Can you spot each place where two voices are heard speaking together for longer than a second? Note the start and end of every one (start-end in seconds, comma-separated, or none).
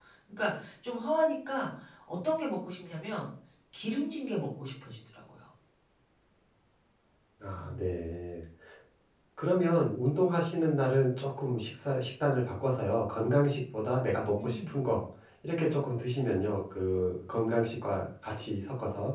none